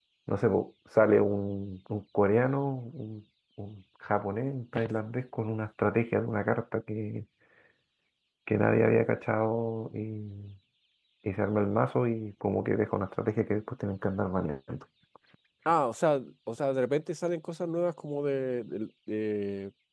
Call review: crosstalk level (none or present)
none